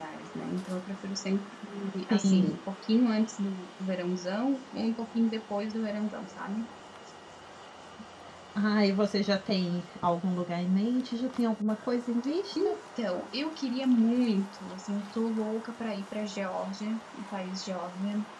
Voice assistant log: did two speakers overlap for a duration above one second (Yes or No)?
No